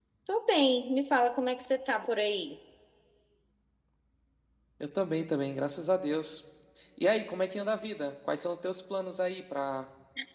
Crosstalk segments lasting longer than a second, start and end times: none

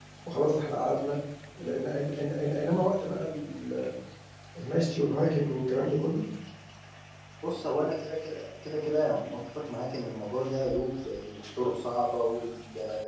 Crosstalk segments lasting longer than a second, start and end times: none

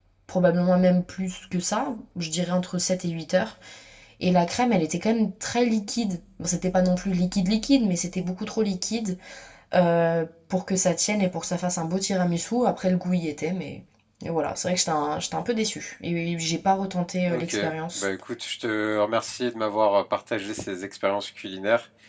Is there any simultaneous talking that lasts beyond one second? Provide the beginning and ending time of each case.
none

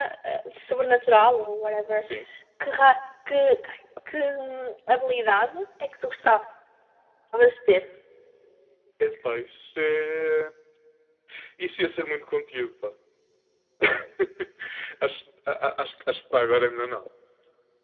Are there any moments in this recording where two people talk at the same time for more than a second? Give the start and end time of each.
none

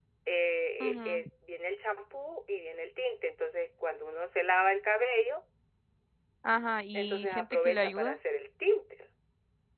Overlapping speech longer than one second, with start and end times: 6.9-8.2

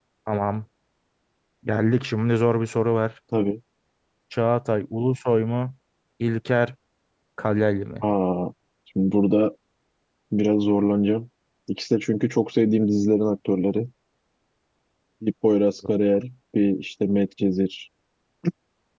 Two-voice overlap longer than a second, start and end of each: none

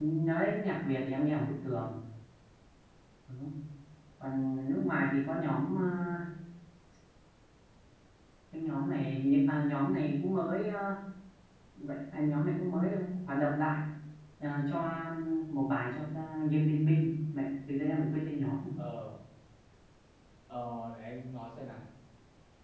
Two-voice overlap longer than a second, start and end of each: none

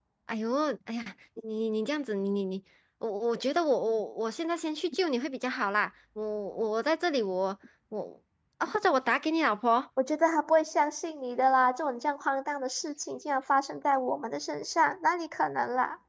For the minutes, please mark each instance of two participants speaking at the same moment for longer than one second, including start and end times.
none

